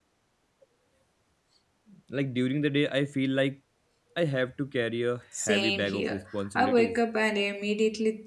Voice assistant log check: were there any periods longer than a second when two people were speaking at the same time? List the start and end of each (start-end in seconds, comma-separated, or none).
5.4-7.0